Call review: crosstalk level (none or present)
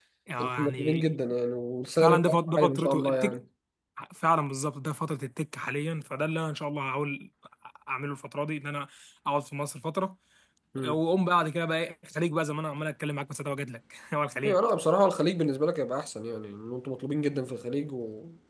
present